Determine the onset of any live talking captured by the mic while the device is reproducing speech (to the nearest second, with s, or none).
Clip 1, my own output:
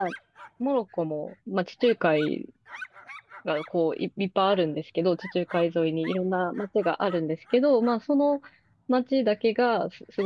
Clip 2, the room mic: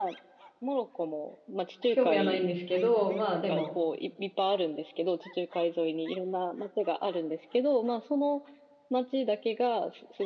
2 s